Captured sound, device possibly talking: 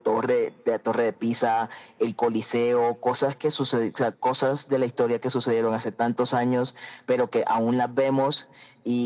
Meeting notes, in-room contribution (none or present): none